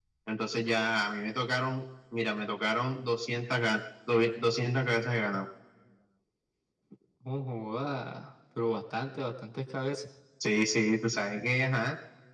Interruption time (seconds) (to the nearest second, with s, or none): none